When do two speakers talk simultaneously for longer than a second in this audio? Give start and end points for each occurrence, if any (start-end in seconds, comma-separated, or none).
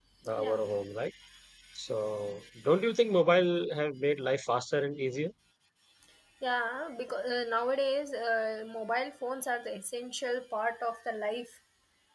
none